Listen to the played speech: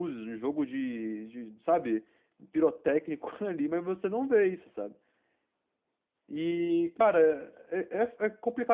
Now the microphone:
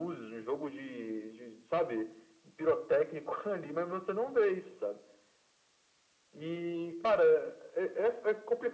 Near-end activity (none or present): none